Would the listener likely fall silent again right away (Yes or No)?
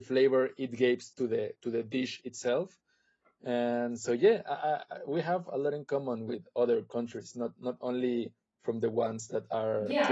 No